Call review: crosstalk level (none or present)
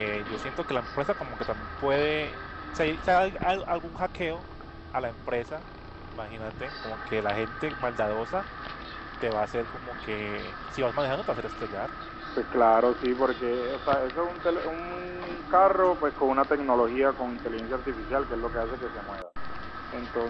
none